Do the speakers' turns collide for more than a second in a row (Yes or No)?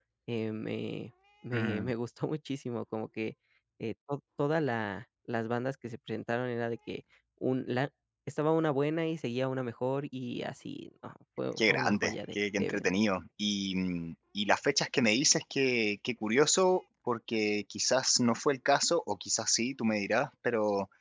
Yes